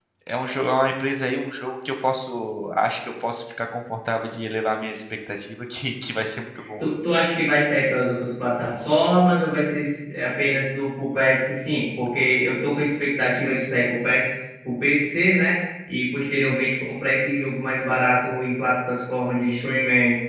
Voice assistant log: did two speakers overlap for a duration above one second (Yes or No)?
No